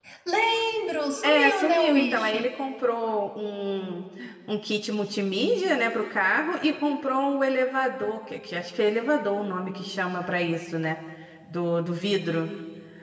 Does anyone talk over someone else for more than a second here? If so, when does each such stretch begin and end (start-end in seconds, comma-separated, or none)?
1.2-2.5